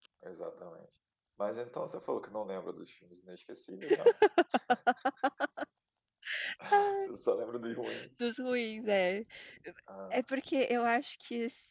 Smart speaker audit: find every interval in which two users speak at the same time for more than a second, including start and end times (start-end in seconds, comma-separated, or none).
none